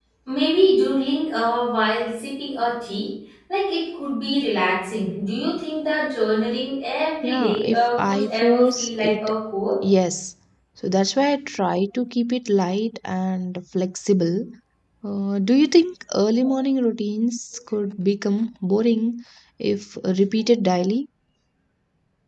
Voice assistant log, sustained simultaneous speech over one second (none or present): present